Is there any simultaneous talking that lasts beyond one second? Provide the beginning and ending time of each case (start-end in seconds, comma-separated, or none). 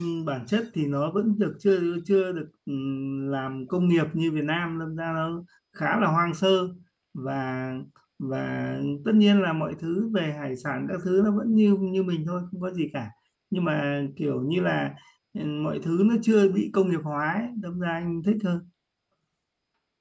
none